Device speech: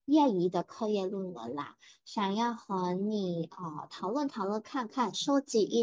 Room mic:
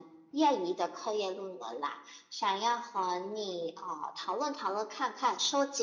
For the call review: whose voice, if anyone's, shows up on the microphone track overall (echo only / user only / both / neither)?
echo only